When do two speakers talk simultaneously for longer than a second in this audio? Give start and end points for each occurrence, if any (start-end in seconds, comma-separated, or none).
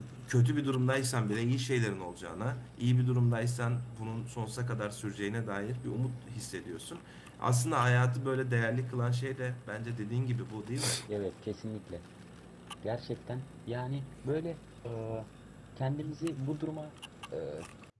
none